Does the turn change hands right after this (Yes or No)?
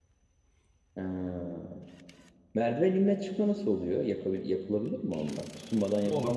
Yes